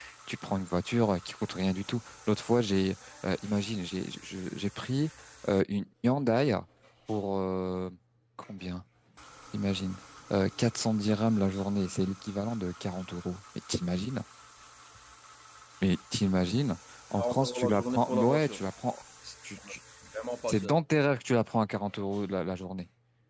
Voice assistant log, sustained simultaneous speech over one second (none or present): present